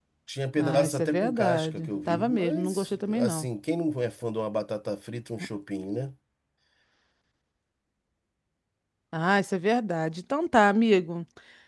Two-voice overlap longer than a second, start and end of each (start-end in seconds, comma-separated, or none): 0.6-3.5